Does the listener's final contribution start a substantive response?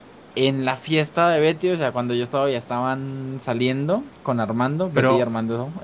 No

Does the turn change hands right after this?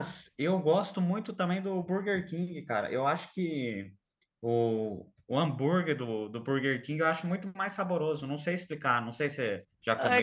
Yes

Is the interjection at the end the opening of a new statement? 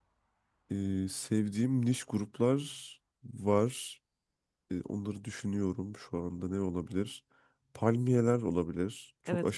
Yes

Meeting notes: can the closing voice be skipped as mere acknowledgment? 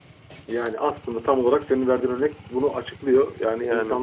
Yes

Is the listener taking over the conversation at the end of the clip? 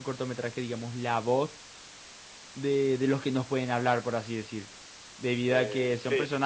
No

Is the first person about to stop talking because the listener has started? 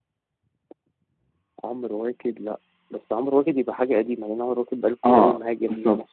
Yes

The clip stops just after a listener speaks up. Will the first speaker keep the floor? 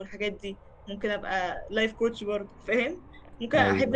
Yes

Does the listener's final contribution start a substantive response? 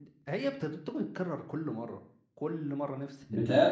Yes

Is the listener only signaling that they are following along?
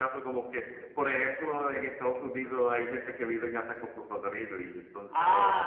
No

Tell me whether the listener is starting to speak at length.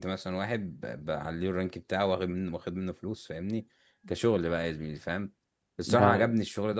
No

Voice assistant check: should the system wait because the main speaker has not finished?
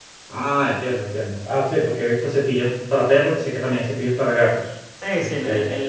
No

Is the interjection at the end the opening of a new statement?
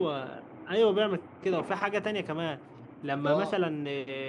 No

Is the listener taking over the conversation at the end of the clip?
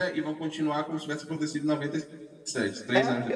Yes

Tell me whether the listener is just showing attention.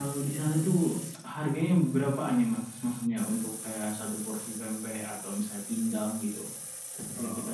Yes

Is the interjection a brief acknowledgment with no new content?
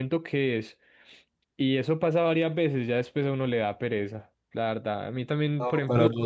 No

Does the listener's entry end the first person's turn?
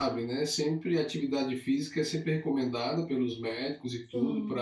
No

